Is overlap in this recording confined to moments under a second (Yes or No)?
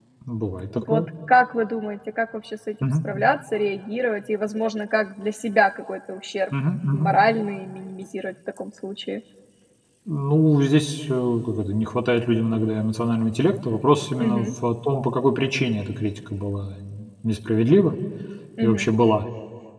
Yes